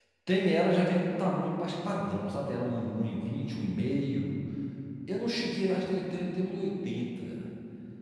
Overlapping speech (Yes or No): No